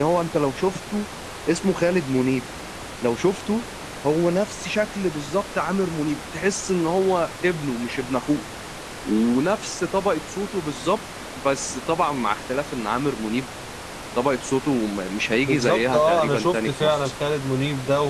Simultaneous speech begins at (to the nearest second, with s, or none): 15 s